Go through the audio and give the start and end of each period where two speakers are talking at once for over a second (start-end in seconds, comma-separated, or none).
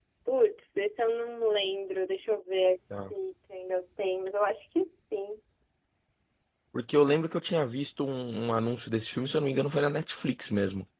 none